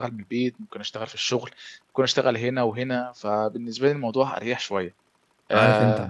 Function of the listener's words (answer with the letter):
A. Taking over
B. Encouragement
A